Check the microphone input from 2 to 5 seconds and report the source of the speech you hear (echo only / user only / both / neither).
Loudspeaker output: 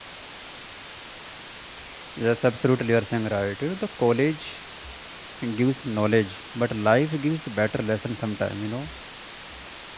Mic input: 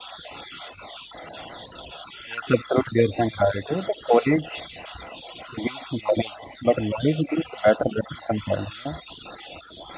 echo only